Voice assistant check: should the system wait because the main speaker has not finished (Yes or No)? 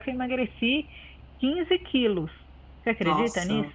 No